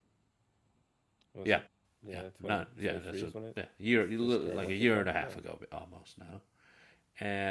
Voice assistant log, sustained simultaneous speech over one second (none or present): present